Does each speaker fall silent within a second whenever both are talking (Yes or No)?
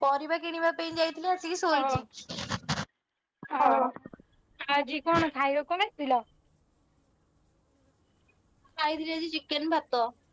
Yes